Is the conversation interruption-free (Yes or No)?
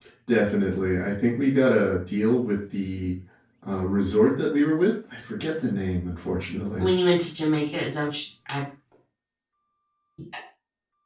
Yes